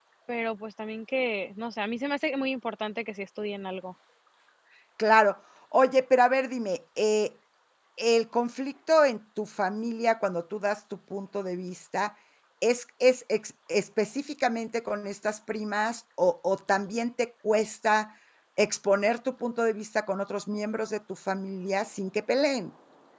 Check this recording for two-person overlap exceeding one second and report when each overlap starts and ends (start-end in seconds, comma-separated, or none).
none